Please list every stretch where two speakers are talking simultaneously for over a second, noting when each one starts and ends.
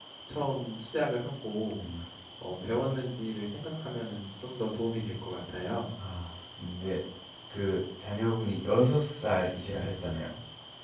none

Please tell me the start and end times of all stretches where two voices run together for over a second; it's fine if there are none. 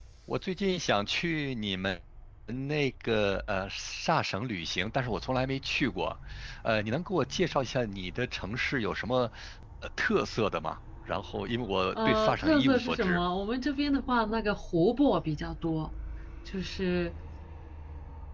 11.9-13.2

